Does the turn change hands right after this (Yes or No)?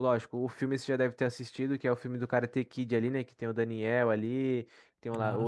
No